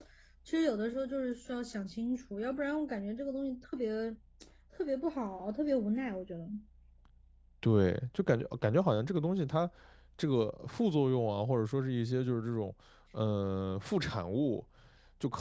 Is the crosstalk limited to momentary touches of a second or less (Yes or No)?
Yes